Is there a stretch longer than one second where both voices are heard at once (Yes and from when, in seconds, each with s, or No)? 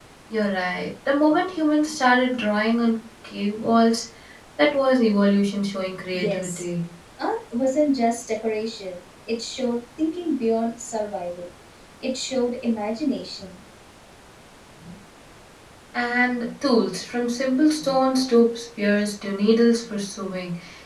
No